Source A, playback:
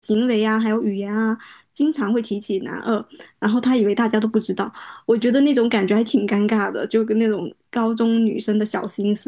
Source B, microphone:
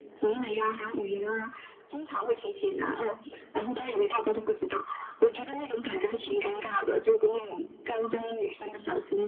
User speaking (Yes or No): No